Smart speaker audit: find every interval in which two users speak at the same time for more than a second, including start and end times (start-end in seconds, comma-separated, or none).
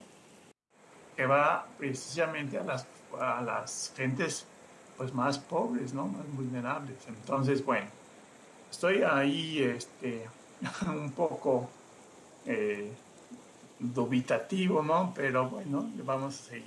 none